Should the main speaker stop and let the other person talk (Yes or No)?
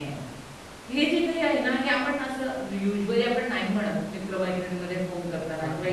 No